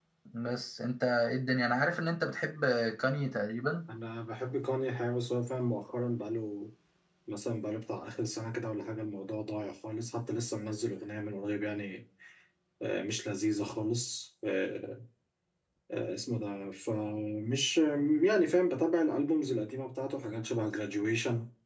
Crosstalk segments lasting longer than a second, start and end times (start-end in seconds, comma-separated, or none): none